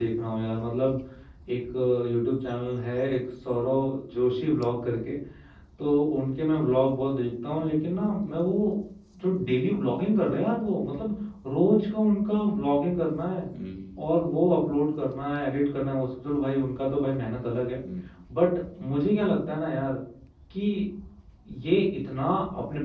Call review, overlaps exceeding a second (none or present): none